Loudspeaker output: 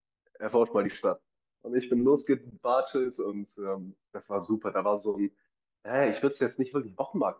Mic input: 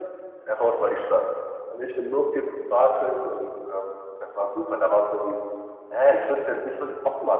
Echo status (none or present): present